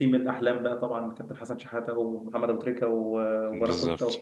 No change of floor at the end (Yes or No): Yes